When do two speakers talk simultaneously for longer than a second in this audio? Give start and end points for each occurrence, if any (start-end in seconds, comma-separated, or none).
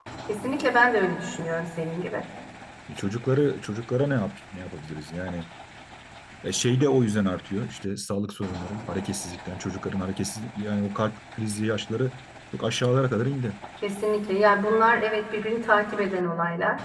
none